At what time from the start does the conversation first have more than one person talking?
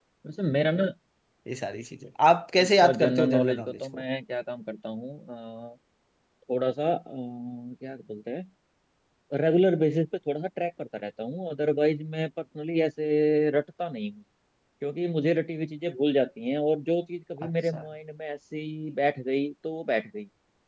2.8 s

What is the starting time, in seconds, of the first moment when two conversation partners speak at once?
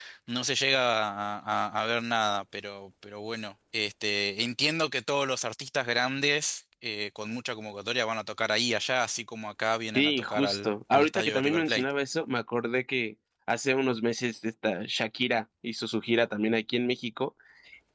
9.9 s

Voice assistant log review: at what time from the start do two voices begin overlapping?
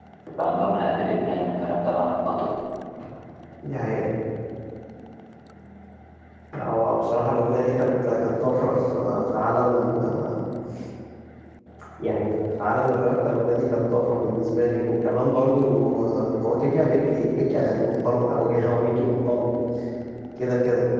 none

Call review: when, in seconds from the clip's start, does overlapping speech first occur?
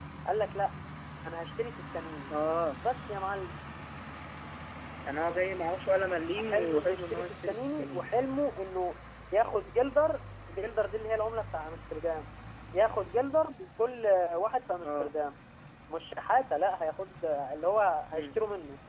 6.4 s

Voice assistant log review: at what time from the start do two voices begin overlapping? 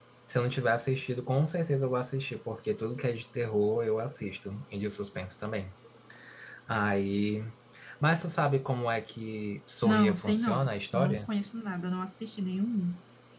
9.8 s

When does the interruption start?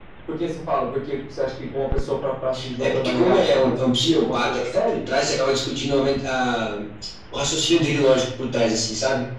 2.8 s

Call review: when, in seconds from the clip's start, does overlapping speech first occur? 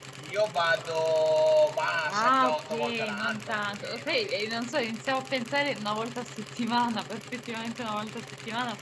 2.1 s

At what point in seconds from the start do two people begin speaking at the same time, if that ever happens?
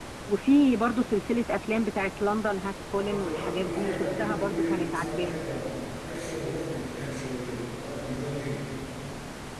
2.9 s

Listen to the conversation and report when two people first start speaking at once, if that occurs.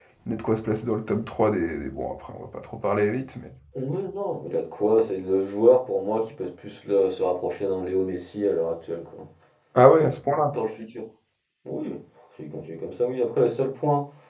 none

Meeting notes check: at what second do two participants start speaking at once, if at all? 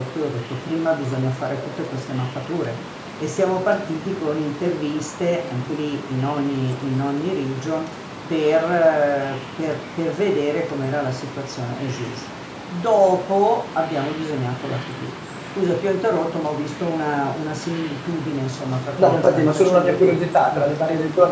19.0 s

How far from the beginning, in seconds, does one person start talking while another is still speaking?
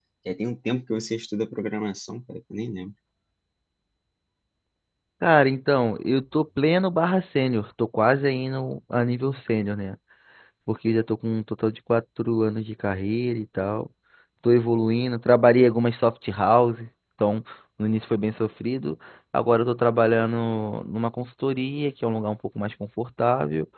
none

